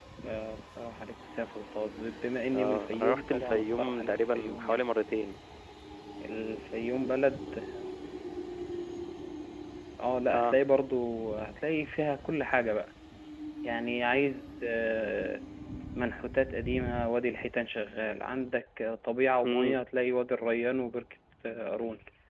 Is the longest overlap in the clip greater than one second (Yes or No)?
Yes